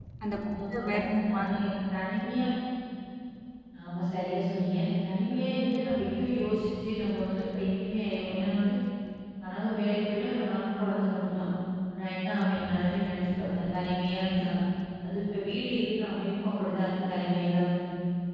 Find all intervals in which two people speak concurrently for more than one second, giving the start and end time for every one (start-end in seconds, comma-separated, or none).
none